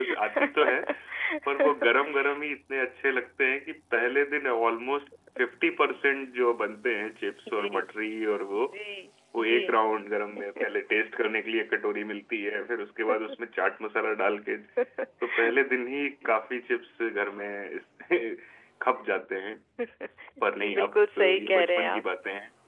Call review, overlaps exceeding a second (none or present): present